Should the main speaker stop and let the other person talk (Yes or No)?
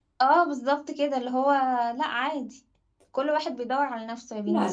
Yes